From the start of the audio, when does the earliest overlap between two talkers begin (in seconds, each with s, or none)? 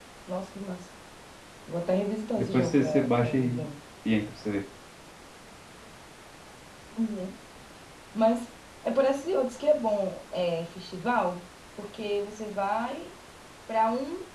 2.4 s